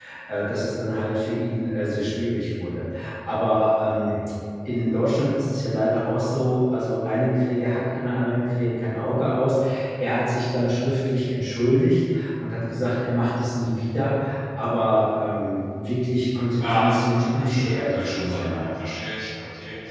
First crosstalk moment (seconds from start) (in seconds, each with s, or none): 16.6 s